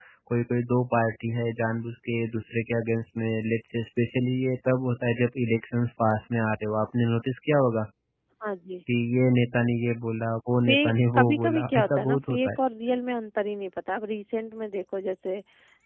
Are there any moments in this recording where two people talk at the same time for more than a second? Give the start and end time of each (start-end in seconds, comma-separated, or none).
11.1-12.5